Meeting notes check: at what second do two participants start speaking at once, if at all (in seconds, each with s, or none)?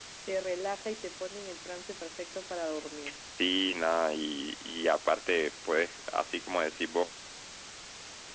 none